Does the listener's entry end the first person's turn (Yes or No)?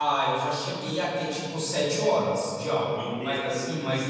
No